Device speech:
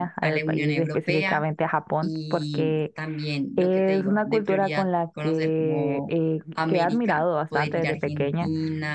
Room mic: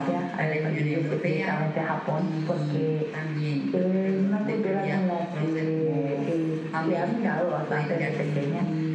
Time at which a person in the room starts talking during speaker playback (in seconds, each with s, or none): none